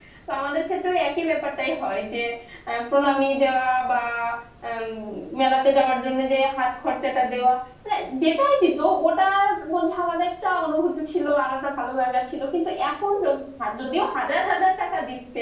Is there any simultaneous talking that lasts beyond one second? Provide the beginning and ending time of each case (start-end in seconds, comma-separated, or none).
none